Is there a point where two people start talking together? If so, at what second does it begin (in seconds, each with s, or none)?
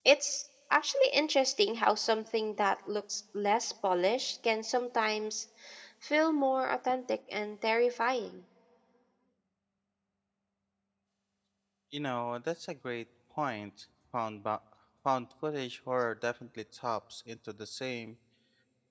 none